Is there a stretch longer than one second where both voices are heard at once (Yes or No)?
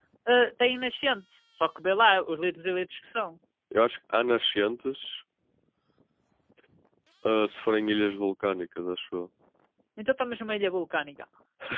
No